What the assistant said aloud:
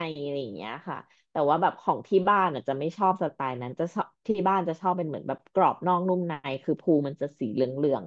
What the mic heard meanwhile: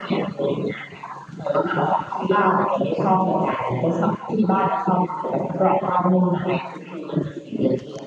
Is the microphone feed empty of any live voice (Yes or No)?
Yes